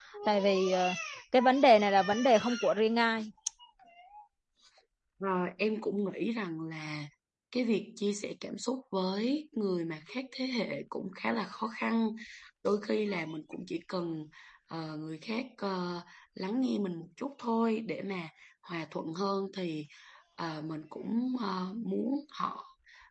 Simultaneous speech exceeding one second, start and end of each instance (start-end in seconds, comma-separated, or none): none